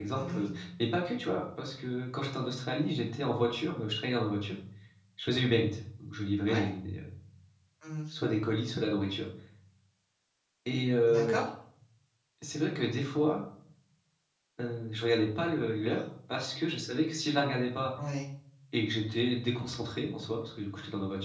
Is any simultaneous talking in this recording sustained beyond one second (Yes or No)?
No